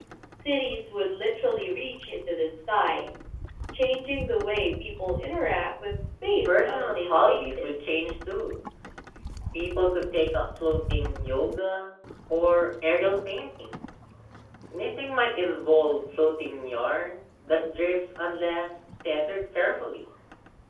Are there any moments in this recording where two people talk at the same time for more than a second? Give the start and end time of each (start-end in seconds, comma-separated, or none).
6.5-7.9